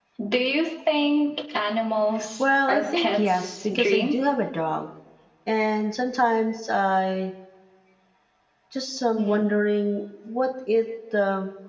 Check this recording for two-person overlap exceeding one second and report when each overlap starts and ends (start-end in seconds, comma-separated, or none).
2.4-4.2